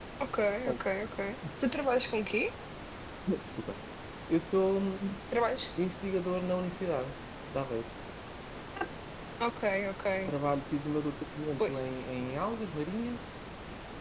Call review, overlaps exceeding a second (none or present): none